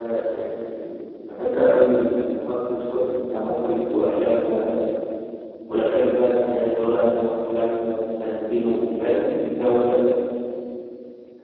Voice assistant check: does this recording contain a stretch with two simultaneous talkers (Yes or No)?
No